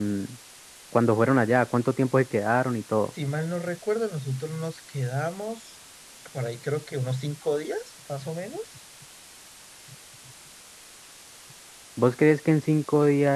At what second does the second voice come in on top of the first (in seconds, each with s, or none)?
none